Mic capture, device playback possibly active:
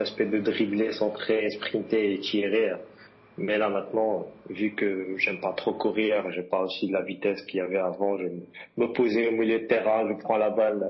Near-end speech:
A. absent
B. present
A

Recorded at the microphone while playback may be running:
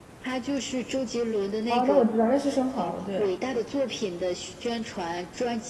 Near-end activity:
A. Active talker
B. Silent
A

